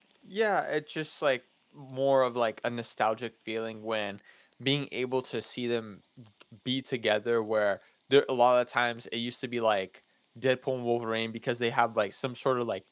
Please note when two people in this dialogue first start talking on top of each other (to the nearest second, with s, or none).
none